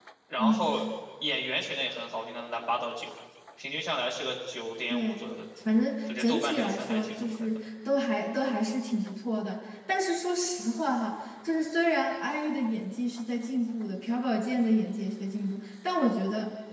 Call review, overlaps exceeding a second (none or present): present